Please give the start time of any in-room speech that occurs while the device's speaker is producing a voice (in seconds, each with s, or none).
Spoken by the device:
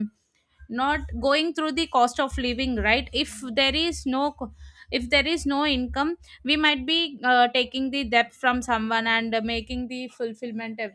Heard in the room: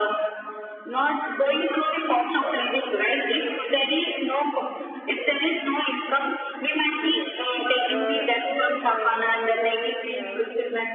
7.0 s